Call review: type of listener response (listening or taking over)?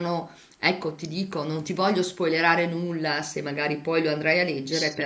taking over